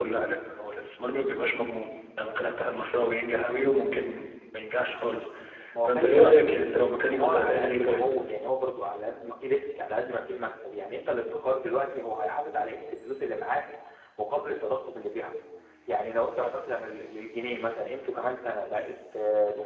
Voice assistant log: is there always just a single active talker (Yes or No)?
No